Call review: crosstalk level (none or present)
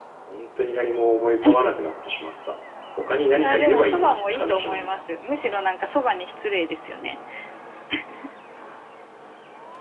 present